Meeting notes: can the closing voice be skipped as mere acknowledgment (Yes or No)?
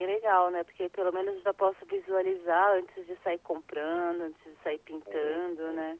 No